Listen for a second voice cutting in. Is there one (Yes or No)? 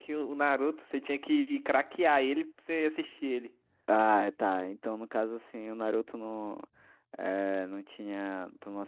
No